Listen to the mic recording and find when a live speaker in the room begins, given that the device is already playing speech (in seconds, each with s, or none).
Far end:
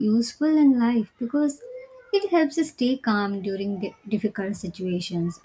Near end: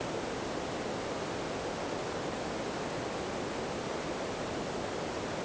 none